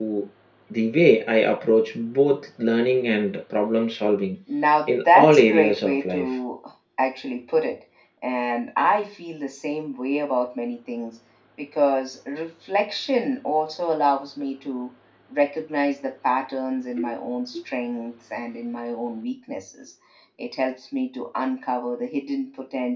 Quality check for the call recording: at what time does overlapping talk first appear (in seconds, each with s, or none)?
4.9 s